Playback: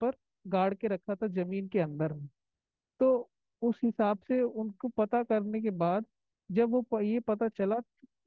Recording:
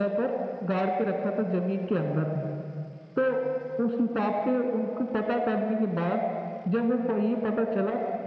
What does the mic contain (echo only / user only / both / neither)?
echo only